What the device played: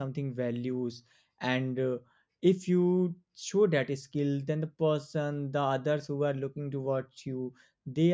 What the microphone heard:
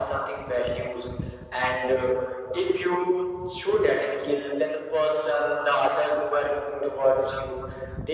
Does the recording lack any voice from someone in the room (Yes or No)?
Yes